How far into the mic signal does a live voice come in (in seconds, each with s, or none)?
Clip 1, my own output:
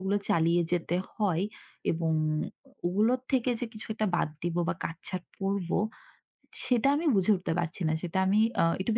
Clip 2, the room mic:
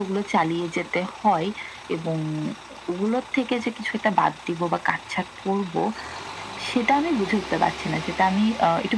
none